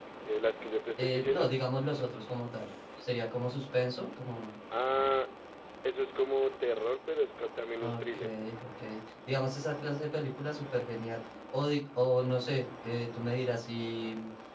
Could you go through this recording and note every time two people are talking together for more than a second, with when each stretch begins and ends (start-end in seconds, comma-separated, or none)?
none